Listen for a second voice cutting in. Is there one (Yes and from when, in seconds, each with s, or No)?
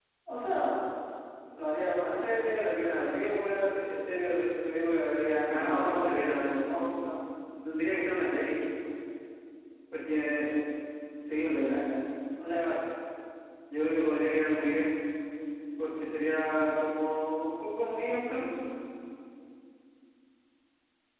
Yes, from 5.4 s